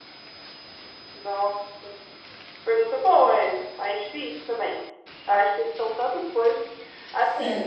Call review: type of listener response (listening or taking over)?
listening